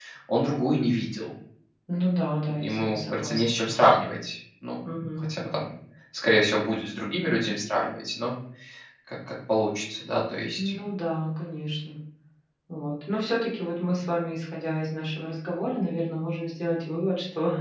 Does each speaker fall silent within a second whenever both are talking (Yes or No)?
No